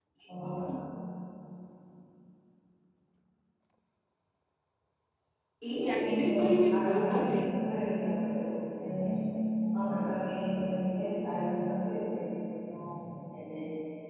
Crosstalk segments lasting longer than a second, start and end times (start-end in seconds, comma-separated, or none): 5.7-7.4